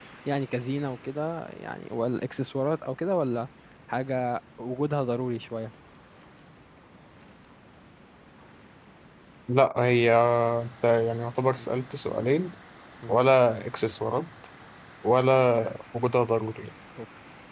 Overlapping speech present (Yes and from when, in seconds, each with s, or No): No